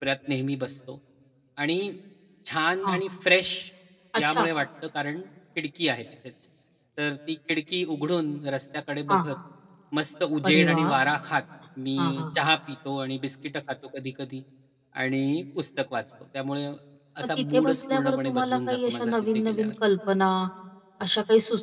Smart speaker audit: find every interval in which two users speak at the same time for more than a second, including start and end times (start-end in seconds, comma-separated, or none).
17.2-19.7